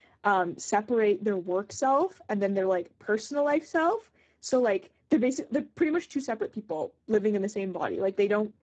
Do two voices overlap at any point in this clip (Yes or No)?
No